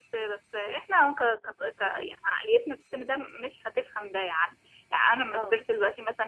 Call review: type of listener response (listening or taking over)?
listening